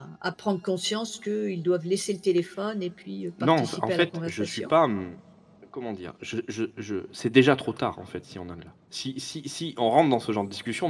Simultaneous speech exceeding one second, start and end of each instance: 3.4-4.7

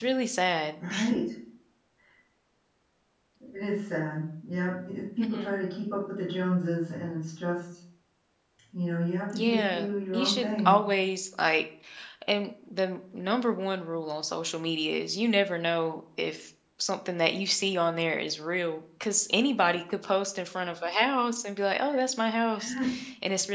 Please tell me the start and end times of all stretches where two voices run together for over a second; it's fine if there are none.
9.3-10.7

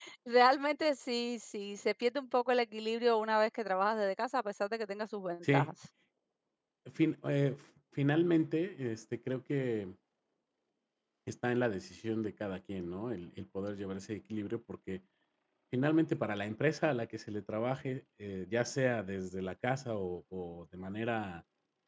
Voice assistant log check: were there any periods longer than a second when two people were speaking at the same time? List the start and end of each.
none

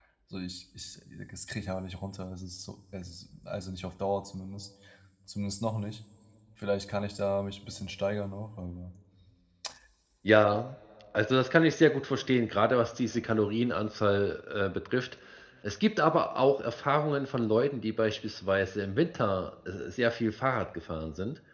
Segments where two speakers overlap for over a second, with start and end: none

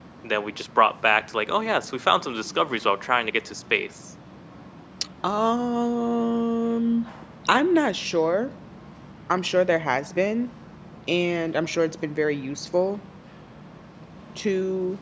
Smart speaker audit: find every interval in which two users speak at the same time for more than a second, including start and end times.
none

